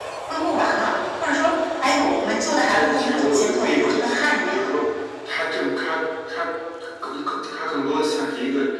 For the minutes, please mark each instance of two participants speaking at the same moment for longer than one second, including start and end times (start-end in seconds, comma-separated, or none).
2.7-4.7